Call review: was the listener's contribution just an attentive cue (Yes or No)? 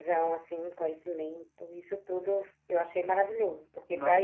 Yes